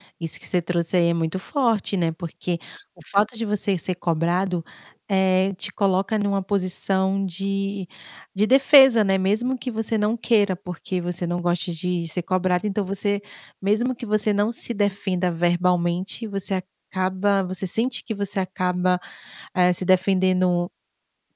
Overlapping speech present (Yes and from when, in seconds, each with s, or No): No